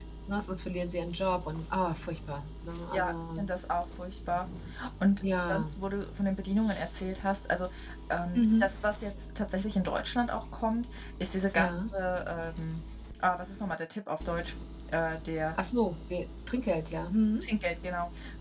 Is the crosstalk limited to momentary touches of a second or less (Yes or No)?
Yes